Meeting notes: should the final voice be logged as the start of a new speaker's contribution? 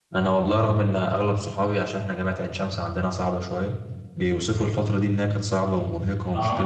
No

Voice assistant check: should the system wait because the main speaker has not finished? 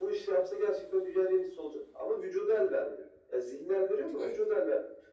Yes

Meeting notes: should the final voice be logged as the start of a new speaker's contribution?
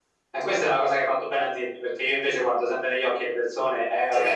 Yes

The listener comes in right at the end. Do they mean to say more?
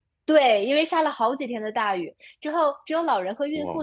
No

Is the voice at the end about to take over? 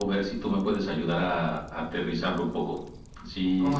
Yes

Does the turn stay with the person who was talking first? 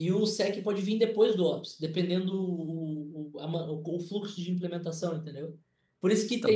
Yes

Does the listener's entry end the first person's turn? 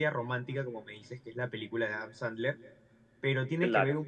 No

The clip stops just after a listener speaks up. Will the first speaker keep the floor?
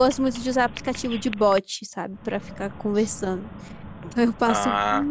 Yes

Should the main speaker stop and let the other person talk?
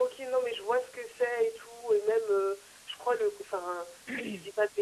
No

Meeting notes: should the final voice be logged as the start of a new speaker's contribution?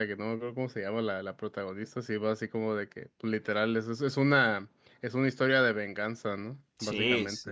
Yes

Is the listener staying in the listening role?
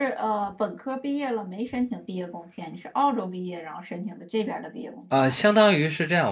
No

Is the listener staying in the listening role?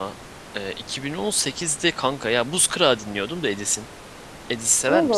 No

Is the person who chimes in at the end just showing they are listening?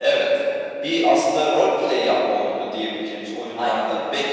Yes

